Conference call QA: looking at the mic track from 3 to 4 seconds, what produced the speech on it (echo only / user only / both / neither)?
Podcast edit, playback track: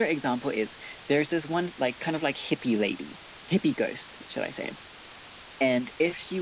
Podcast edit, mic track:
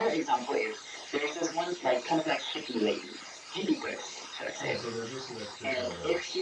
echo only